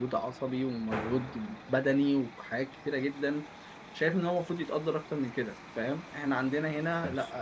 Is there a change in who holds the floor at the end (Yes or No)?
No